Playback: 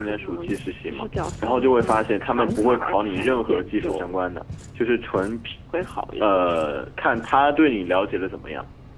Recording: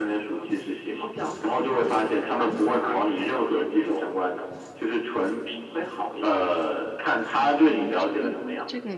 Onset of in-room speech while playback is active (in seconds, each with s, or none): 7.6 s